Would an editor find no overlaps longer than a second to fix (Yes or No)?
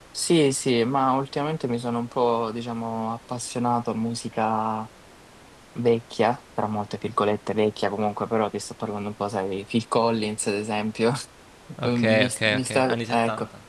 No